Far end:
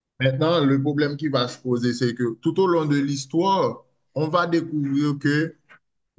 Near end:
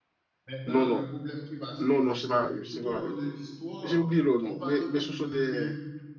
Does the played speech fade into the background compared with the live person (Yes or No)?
Yes